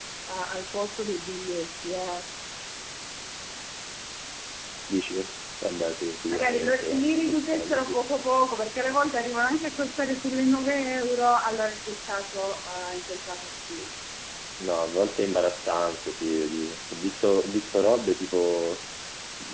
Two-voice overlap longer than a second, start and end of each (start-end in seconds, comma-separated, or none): 6.3-8.0